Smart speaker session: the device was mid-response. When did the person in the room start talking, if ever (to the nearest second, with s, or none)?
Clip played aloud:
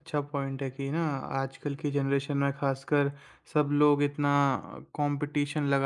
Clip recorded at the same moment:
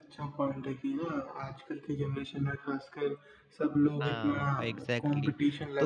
4 s